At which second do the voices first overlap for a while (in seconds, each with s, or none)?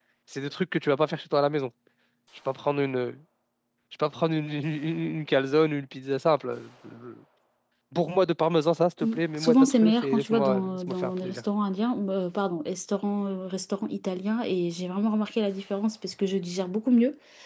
9.0 s